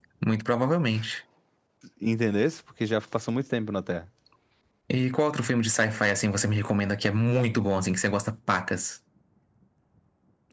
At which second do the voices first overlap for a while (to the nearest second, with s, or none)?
none